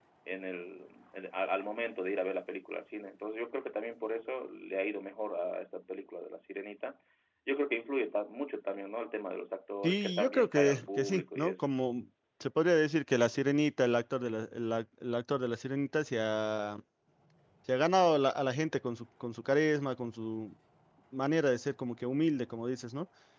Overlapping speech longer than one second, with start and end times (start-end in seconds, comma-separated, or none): 9.8-11.7